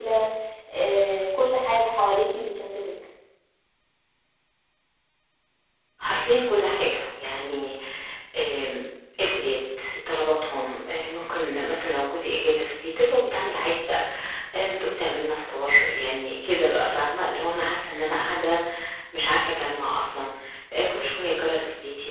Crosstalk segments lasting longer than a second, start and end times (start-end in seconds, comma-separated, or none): none